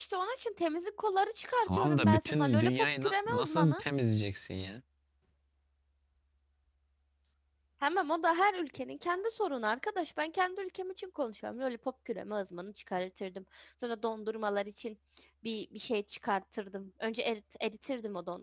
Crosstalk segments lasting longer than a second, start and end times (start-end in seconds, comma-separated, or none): 1.6-3.8